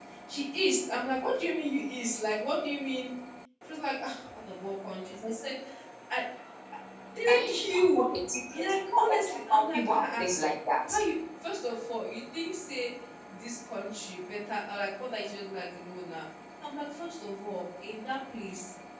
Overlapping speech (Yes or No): Yes